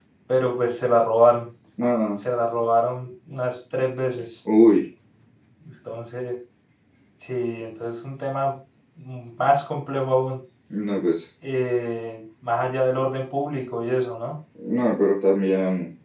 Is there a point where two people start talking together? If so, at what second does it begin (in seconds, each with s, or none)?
none